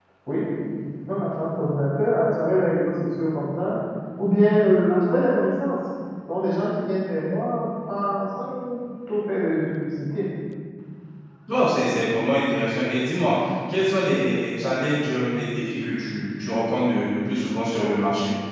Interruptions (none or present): none